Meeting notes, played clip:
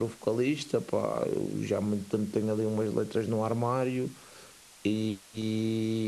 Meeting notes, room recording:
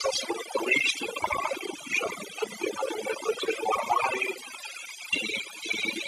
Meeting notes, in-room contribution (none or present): none